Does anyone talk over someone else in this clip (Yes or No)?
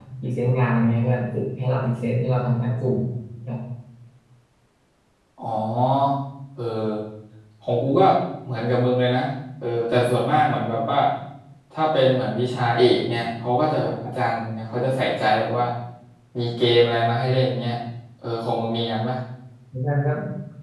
No